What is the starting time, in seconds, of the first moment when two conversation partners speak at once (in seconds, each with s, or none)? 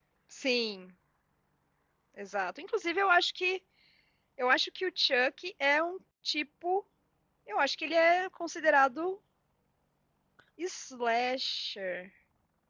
none